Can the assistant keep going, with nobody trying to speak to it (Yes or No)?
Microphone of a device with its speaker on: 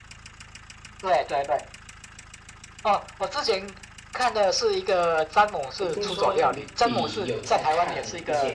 No